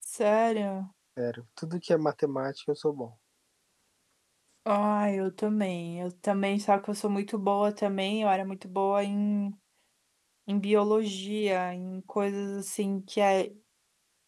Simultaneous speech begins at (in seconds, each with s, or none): none